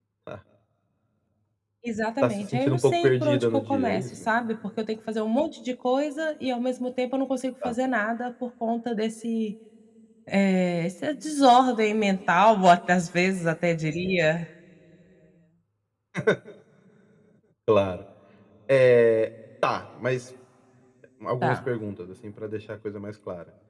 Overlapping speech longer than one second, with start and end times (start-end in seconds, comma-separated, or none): 2.2-4.0